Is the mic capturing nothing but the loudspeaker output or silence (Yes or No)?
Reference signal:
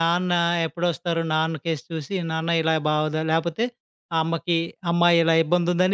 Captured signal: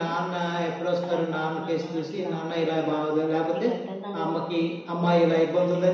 No